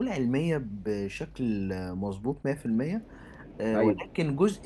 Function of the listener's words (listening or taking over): listening